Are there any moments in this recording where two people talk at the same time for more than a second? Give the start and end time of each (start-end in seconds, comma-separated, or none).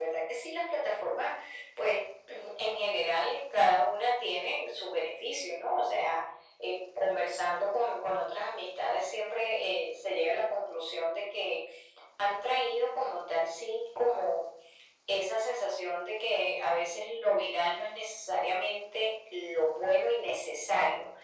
none